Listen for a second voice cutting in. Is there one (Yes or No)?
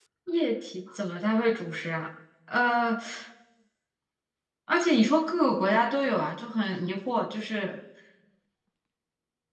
No